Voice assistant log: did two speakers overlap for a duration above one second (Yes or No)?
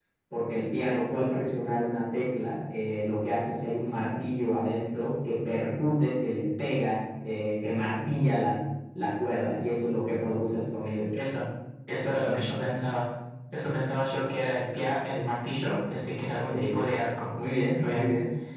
No